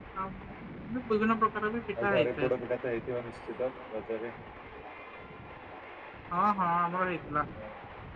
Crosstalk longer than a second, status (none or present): none